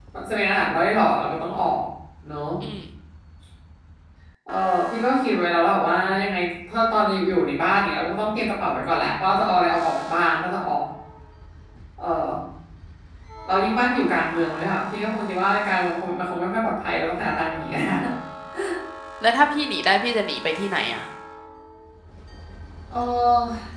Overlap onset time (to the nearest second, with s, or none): none